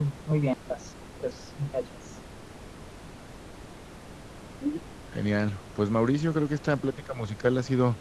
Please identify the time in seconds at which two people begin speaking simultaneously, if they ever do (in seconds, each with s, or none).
none